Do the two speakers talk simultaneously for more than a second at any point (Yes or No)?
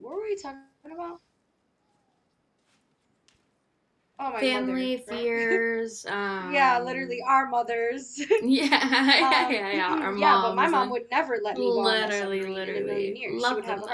Yes